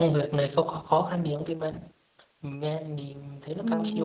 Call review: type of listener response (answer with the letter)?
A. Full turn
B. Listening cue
A